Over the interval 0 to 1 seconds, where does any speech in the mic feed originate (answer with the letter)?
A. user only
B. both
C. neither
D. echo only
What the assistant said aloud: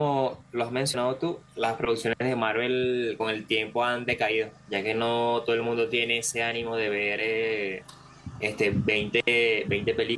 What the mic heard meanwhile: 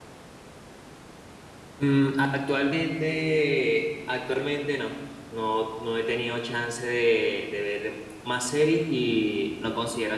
C